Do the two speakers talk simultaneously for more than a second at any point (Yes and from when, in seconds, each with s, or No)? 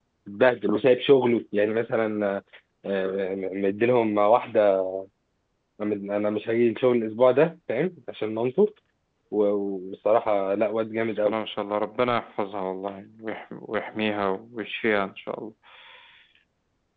No